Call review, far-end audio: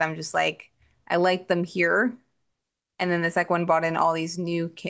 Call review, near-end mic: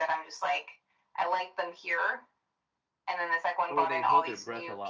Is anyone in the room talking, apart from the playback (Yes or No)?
Yes